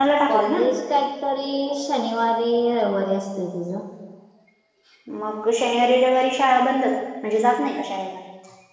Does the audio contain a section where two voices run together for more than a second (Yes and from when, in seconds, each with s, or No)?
No